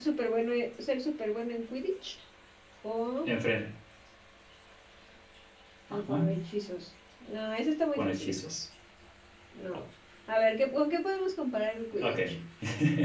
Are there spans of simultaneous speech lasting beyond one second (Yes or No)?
No